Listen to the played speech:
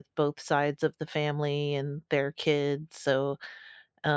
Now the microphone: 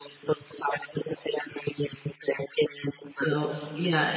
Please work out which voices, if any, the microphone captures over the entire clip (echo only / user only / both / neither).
both